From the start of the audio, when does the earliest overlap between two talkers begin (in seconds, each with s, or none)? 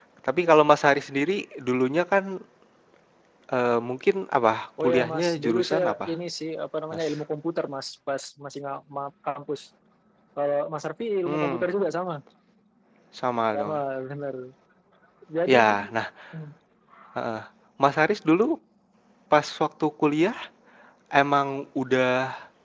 4.8 s